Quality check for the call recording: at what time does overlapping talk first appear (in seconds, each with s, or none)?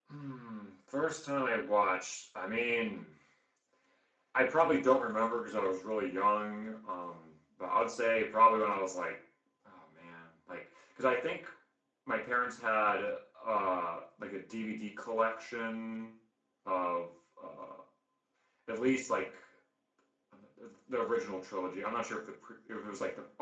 none